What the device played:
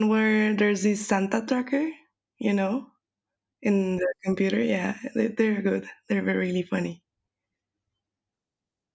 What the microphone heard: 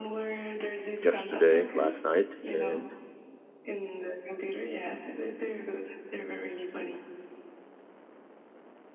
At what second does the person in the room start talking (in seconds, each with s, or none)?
1.0 s